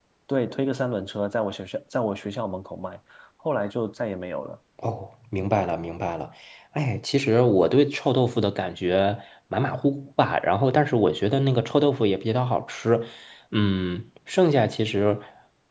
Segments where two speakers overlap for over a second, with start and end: none

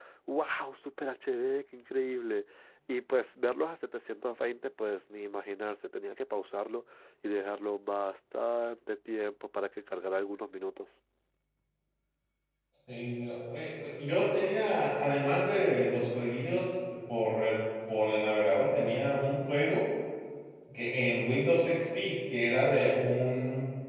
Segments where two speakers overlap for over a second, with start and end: none

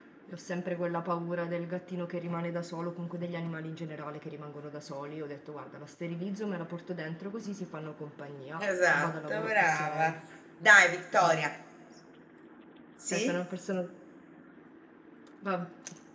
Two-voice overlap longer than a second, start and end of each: 8.7-10.1

